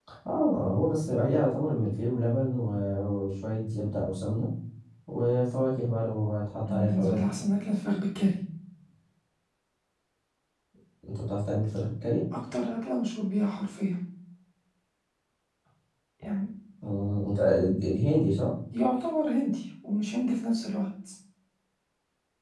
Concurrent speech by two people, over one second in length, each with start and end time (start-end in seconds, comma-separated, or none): none